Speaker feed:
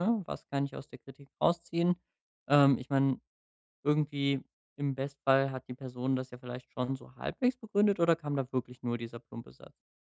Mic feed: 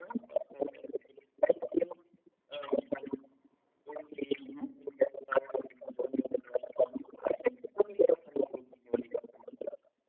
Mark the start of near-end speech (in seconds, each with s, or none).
4.4 s